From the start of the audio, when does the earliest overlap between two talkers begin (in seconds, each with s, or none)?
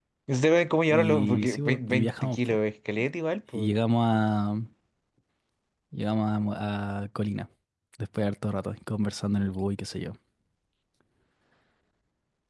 0.9 s